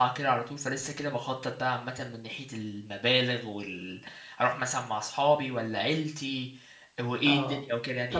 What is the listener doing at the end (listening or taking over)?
taking over